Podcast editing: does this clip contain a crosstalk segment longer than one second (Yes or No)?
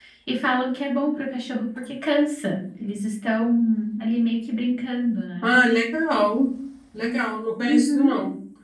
No